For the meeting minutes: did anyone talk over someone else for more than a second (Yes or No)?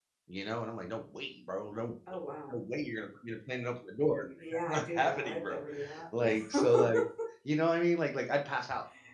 Yes